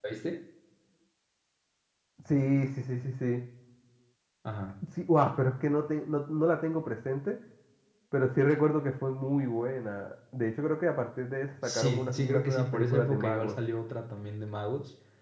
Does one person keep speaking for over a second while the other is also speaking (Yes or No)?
Yes